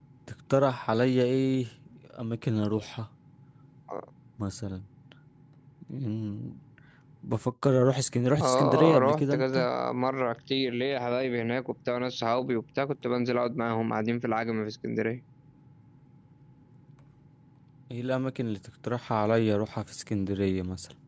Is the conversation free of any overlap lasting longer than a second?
No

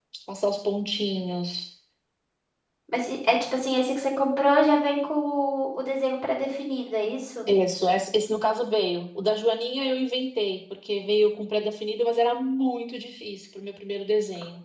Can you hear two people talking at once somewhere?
No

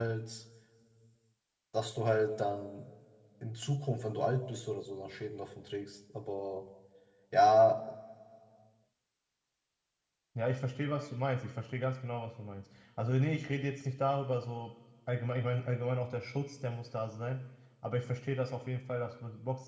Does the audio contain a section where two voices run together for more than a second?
No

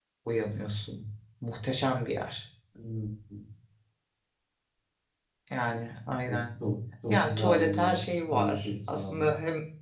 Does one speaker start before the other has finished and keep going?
Yes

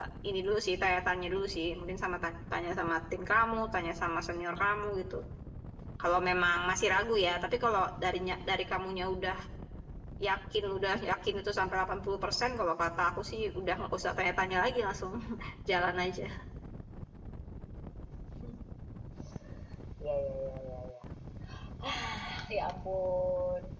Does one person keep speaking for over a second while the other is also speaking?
No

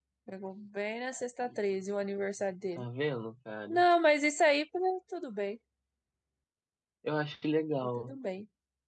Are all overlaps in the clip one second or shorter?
Yes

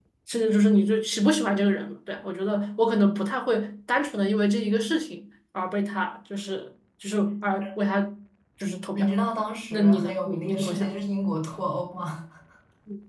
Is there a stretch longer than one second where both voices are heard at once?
Yes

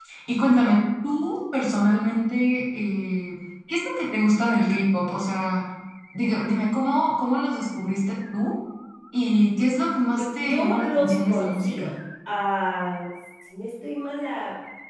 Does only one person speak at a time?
No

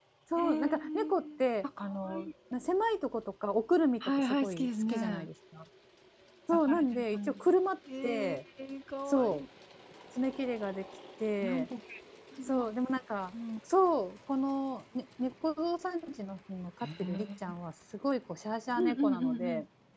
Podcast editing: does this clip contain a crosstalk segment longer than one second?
Yes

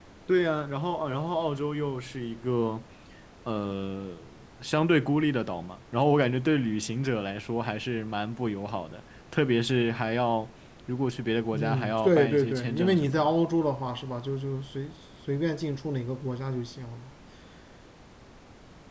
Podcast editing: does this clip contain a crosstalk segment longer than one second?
Yes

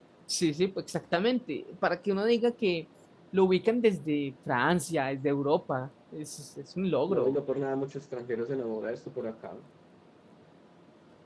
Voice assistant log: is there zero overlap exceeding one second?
Yes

